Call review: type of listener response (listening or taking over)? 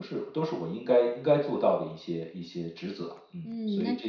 taking over